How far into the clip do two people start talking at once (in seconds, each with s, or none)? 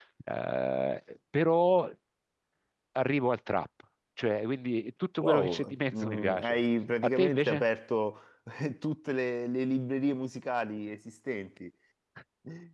5.2 s